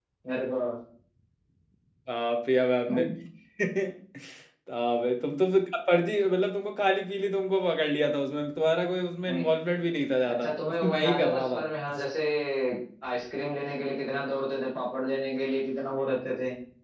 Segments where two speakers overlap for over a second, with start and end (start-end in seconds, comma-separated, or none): 10.2-11.6